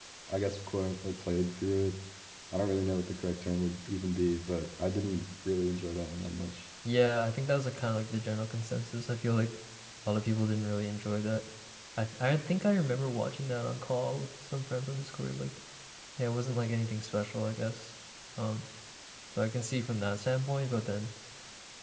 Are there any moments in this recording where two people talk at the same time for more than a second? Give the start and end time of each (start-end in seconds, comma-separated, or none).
none